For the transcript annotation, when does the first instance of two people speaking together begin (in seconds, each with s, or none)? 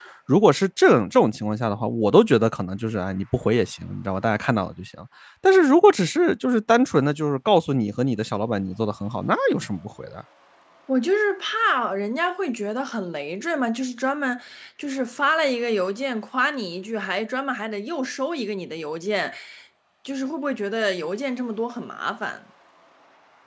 none